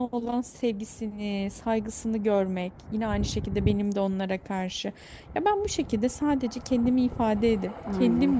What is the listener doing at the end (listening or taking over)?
listening